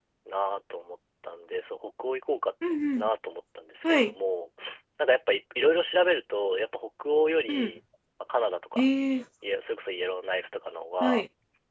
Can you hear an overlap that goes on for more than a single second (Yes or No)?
No